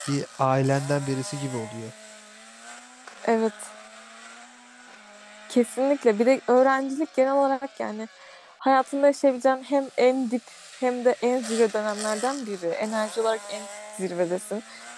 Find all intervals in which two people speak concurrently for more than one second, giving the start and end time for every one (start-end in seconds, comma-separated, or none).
none